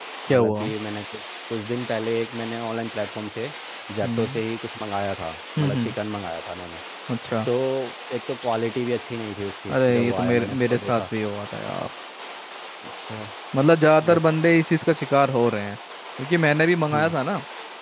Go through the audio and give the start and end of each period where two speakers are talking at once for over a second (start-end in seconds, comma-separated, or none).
9.7-11.1